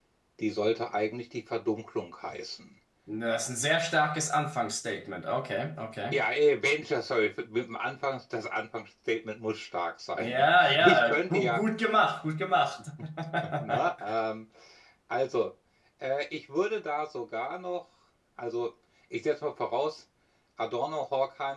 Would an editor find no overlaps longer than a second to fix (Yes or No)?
No